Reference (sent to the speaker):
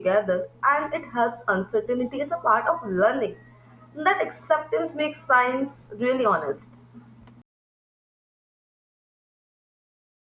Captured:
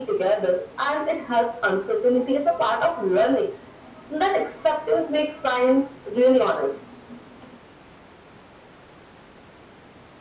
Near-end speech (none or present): none